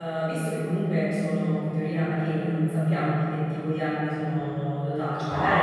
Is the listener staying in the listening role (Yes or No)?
Yes